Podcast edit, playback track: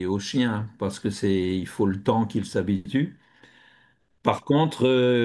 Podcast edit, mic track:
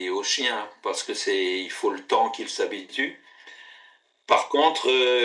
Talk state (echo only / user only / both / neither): echo only